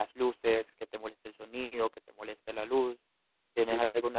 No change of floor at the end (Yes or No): No